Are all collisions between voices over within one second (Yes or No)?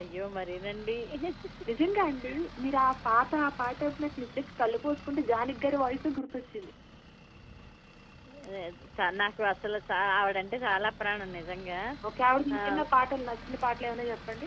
Yes